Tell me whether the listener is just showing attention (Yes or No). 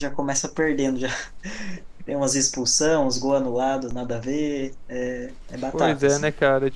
No